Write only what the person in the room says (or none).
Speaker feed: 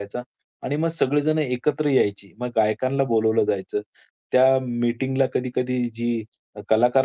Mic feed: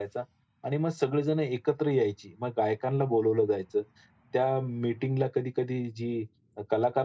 none